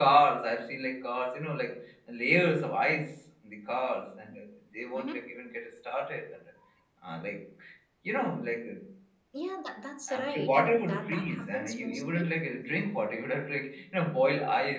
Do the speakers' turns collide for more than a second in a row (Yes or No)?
Yes